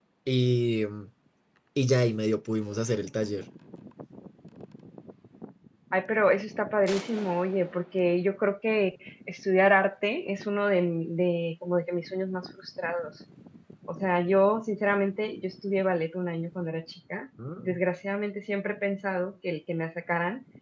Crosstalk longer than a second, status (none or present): none